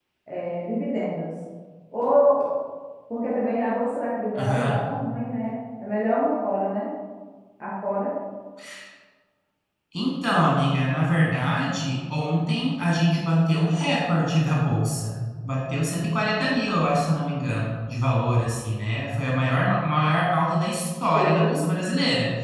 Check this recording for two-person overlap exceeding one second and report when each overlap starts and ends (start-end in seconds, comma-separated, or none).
none